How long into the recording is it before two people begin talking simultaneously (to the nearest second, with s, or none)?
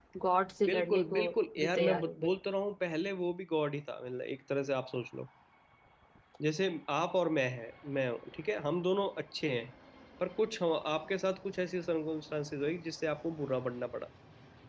1 s